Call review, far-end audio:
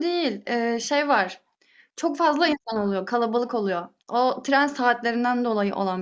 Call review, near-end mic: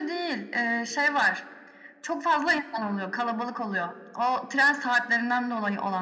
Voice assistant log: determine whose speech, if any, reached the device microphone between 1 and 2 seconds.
echo only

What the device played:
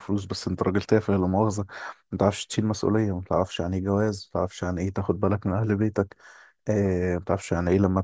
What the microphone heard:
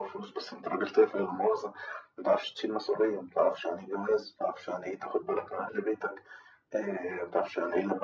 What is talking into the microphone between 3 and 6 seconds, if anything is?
echo only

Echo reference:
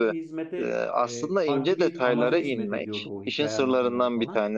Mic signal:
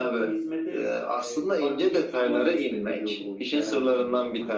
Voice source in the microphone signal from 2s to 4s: echo only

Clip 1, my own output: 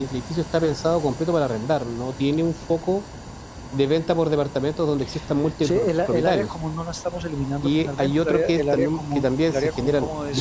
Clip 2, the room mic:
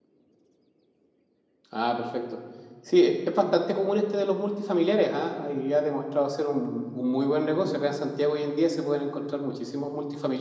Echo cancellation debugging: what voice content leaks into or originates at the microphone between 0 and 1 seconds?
neither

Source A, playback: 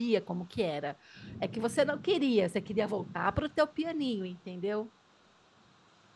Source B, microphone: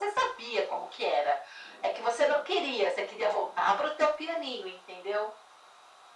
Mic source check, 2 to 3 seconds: echo only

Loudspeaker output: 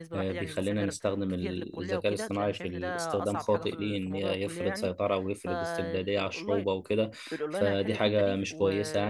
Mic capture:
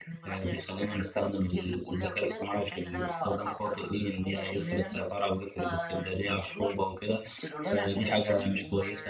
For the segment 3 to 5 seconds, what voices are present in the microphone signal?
echo only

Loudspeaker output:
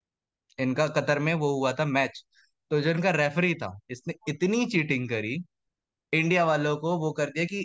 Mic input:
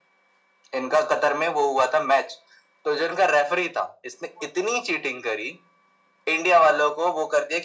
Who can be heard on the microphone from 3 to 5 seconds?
echo only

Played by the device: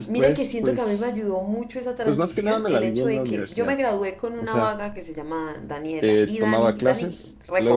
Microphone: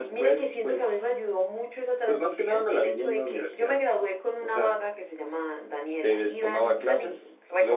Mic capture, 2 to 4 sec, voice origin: echo only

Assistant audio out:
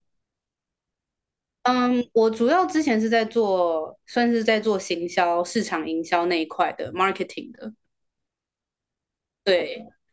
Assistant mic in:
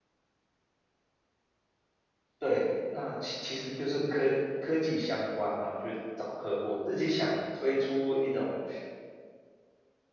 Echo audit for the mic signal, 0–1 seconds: neither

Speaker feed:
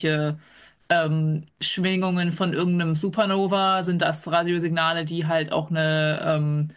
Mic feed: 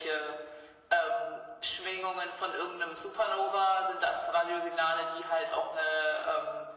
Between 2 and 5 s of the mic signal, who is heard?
echo only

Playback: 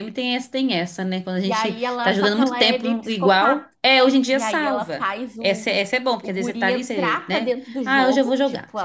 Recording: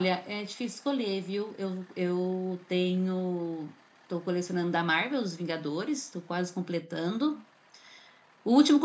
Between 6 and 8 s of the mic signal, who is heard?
user only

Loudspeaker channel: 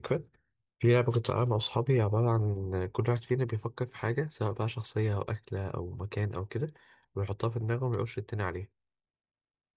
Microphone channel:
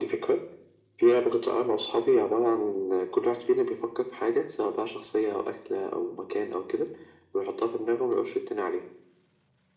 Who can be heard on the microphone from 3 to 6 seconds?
echo only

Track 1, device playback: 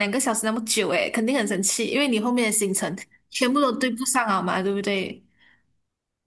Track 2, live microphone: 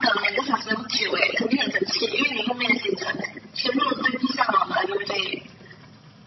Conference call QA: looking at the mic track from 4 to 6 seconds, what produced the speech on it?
echo only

